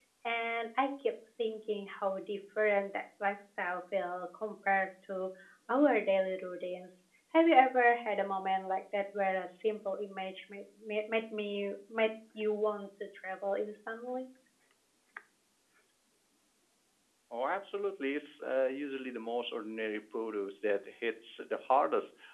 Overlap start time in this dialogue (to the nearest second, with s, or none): none